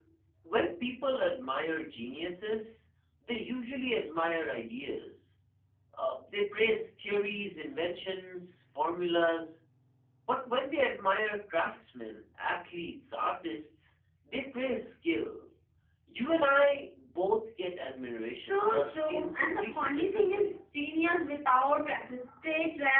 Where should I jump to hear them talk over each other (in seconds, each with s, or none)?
18.4 s